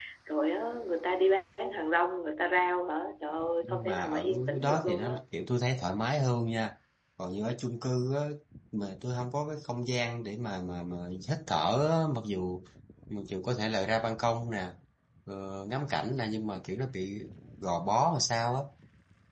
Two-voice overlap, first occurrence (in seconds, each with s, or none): 3.6 s